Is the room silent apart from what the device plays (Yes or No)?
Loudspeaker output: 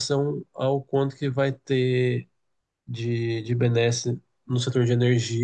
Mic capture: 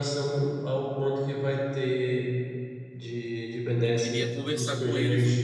No